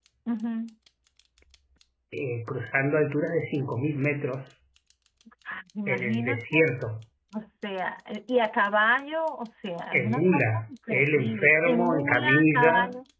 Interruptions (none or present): present